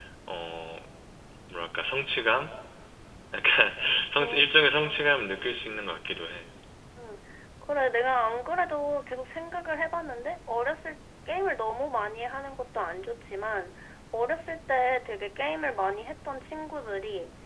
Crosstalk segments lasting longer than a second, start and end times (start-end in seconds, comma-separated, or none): 4.1-5.3